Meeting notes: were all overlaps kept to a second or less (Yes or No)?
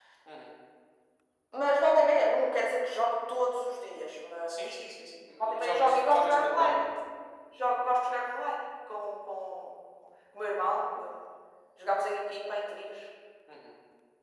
No